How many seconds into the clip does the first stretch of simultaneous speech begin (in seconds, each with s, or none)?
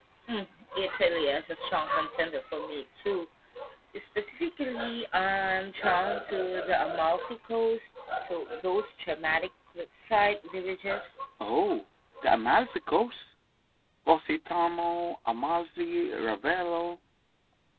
none